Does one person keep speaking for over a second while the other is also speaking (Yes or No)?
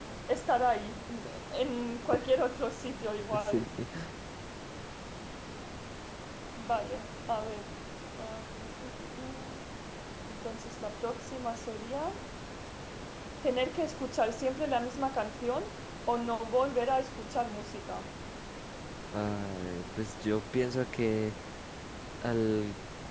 No